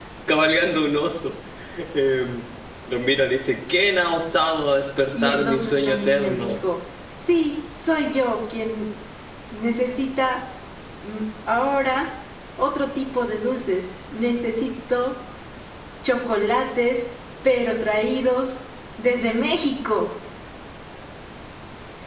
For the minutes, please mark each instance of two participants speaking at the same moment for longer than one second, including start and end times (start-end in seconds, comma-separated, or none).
5.2-6.6